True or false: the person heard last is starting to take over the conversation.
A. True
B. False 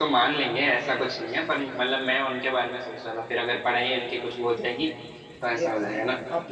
A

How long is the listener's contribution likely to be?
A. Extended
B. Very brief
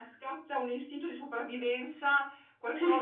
B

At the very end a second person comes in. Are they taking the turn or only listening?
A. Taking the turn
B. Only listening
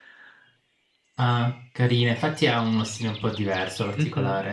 A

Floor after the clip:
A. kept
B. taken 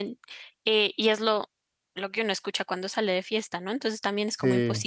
A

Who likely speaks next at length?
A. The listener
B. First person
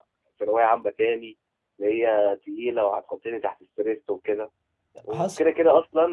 B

